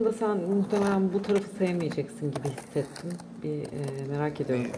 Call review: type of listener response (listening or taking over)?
listening